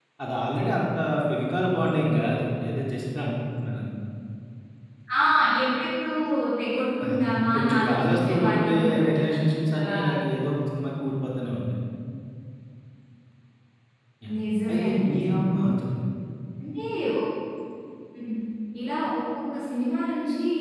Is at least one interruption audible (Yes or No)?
Yes